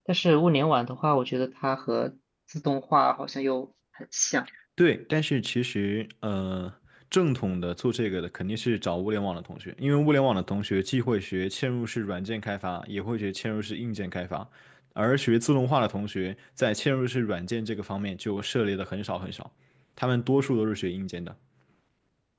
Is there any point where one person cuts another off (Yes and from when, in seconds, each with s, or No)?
No